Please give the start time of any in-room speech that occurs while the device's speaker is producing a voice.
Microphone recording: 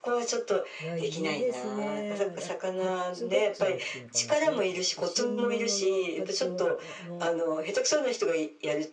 0.8 s

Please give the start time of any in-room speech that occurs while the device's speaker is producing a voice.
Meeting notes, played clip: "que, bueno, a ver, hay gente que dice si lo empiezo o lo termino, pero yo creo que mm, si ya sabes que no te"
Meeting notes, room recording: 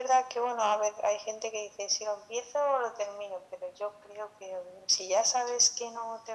none

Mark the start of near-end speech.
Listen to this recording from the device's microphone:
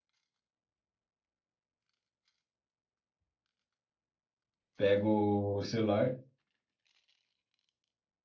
4.8 s

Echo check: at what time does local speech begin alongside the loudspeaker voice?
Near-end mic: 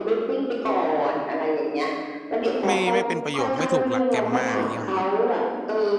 2.6 s

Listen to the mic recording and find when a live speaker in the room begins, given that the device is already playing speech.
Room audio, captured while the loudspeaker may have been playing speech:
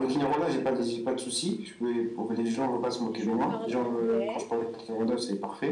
3.1 s

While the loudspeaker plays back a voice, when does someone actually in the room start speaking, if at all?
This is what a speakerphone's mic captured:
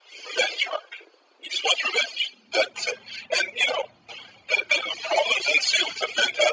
none

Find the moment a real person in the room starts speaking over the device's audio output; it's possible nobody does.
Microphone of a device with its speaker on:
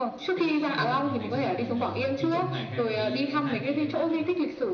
0.3 s

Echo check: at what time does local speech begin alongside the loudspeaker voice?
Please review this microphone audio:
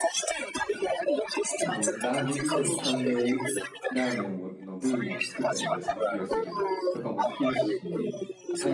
1.6 s

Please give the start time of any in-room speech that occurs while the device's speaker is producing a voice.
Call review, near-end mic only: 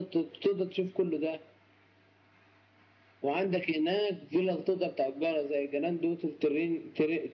none

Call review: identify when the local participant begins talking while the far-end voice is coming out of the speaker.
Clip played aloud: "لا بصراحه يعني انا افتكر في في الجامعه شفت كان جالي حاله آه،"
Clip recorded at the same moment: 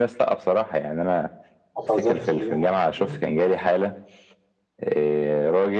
1.8 s

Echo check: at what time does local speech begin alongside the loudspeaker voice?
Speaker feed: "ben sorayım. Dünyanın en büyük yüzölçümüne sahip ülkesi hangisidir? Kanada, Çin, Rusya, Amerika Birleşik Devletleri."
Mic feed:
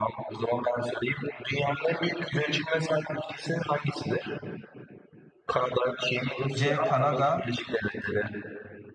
6.5 s

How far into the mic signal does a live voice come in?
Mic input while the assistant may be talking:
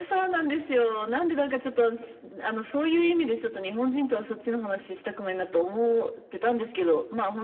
none

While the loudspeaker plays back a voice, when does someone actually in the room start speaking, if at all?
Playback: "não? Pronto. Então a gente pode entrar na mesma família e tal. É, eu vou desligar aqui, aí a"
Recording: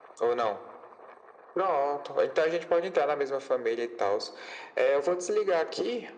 none

